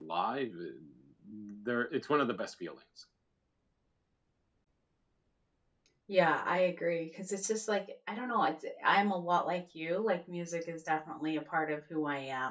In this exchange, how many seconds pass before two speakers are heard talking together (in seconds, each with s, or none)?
none